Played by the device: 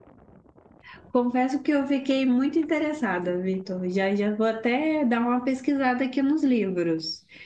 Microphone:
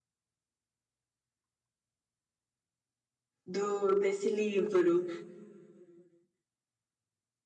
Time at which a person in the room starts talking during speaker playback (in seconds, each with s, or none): 3.5 s